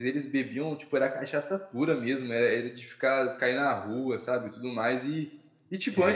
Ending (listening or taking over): listening